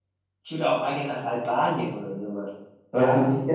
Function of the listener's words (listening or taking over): taking over